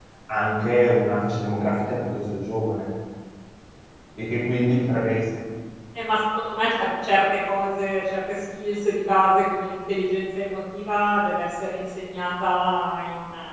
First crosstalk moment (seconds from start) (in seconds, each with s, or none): none